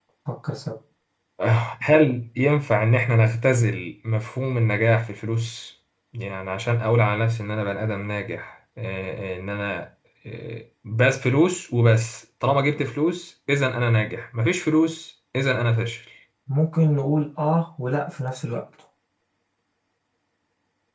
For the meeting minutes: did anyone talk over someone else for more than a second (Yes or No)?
No